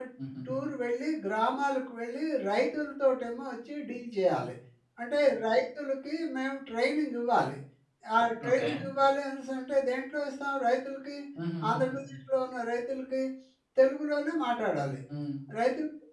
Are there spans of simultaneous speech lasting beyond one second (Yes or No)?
No